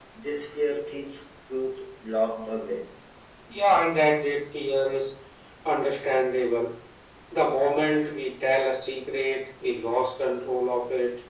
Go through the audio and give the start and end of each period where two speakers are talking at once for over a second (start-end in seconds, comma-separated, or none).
none